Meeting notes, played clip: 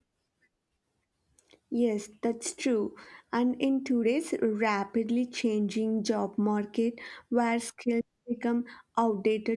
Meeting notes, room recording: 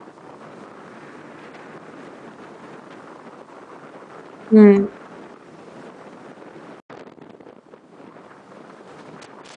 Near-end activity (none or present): present